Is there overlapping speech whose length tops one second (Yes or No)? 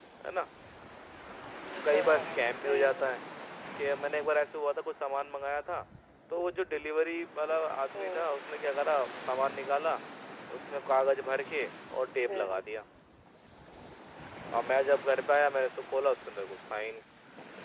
Yes